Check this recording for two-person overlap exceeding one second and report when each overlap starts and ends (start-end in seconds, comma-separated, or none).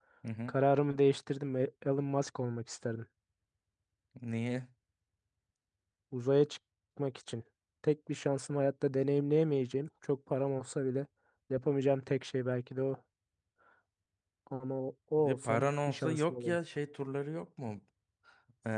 15.2-16.6